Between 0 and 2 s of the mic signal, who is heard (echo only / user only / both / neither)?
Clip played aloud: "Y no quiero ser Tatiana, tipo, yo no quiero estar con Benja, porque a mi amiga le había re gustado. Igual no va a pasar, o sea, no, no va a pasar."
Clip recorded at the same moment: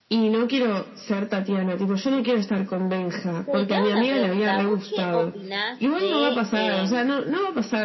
echo only